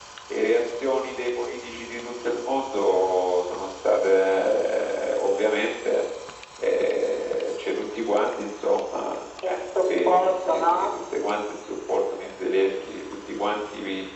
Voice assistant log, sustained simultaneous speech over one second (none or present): present